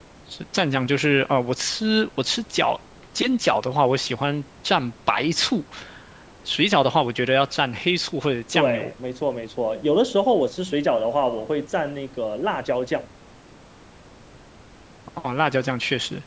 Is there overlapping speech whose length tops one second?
No

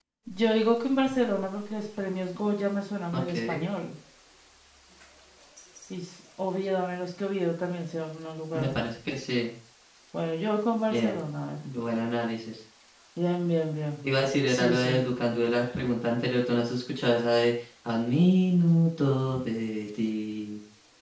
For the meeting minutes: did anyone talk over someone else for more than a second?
No

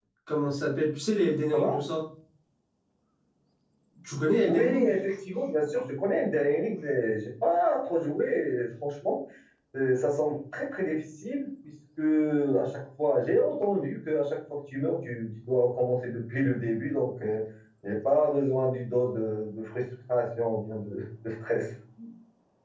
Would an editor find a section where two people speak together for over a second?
No

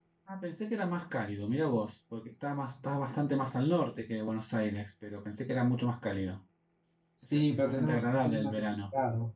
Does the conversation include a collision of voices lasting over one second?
Yes, from 7.2 s

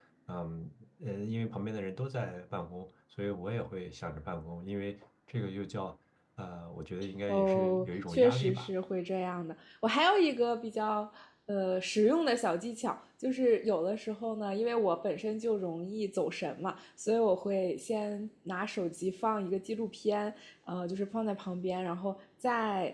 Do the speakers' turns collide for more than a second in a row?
Yes, from 7.3 s

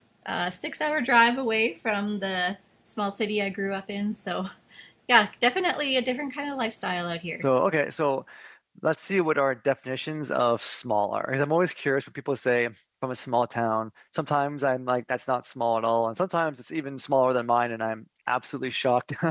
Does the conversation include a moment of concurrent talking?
No

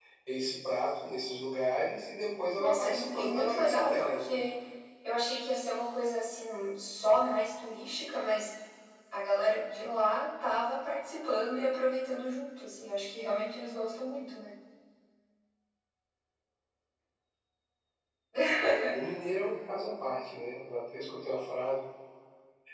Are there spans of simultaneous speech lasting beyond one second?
Yes, from 2.6 s

